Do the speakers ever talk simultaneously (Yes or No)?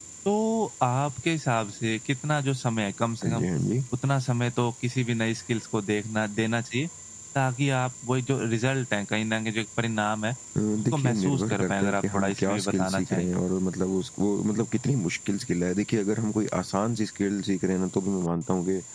Yes